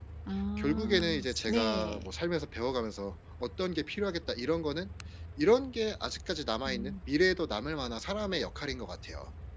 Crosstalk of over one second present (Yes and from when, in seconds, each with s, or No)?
Yes, from 0.6 s